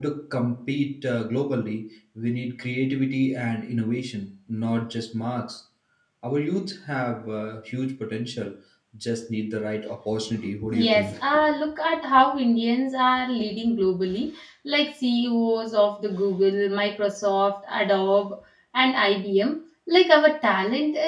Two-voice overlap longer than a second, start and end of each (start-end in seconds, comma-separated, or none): none